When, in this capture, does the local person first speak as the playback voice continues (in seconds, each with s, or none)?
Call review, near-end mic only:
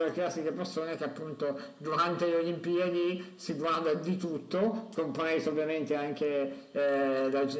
none